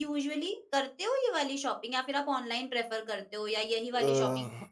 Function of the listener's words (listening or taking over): taking over